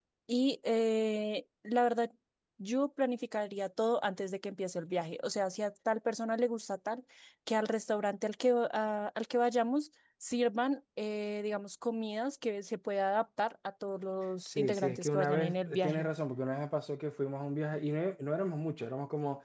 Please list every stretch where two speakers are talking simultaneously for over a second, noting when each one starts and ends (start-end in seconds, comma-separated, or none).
14.5-16.1